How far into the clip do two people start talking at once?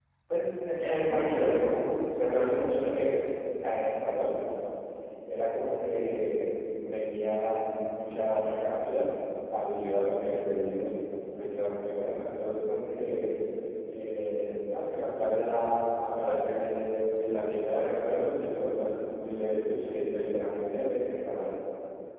0.8 s

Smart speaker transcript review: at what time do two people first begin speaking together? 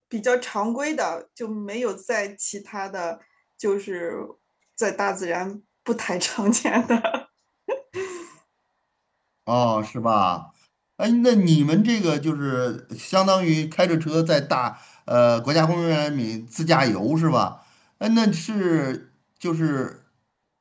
none

